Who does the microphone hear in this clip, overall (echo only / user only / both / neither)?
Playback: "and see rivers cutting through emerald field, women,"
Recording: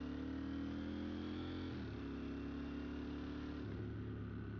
neither